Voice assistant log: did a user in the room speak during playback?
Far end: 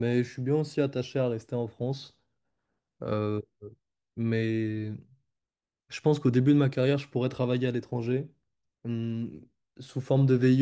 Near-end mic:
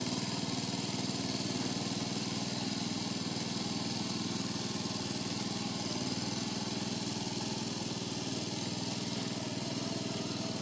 No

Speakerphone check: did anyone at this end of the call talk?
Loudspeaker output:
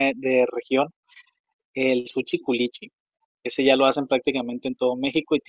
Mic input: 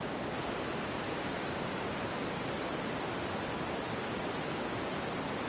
No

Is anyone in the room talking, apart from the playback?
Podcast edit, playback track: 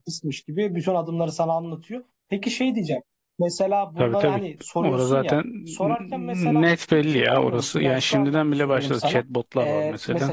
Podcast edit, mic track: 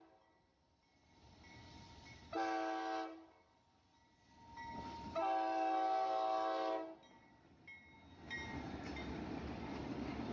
No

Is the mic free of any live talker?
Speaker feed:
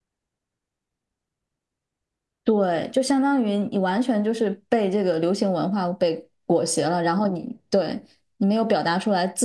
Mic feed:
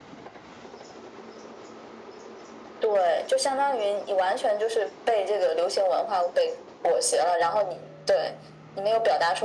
Yes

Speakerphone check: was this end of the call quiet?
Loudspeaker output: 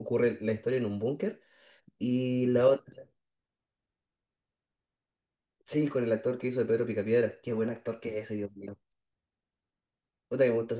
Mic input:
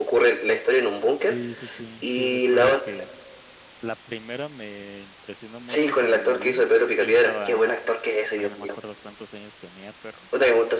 No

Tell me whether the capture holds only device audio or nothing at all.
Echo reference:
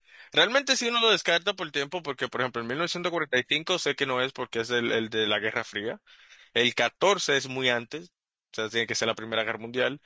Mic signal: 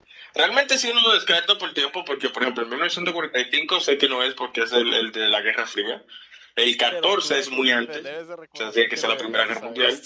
No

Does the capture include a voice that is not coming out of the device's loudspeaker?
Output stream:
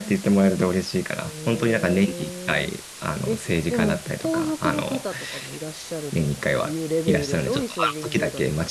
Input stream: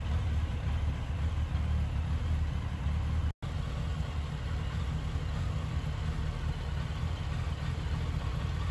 No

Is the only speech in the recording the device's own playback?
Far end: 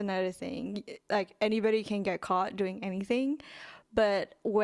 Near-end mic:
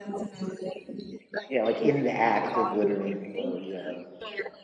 No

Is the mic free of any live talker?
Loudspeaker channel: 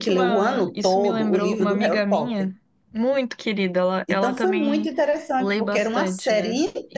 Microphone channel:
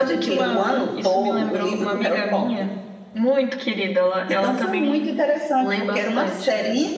Yes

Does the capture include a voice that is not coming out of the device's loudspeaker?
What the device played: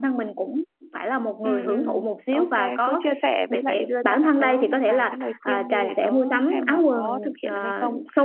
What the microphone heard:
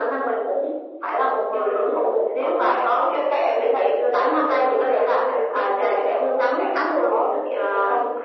No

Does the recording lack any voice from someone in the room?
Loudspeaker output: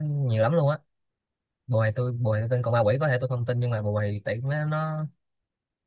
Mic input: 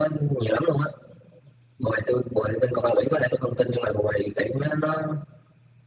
Yes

